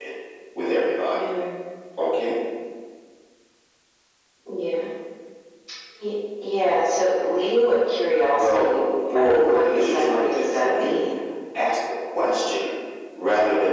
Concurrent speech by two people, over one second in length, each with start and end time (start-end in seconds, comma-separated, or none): 9.1-10.9